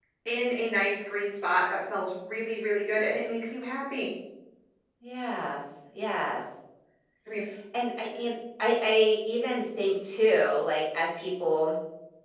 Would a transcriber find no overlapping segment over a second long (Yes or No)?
Yes